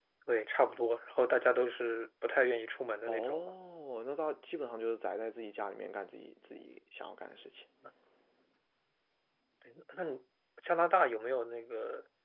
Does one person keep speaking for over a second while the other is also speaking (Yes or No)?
No